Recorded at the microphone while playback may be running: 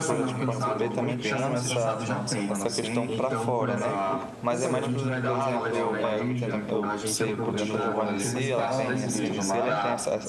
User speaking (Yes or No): Yes